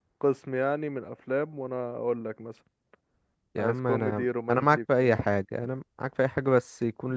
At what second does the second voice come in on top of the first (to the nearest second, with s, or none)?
4 s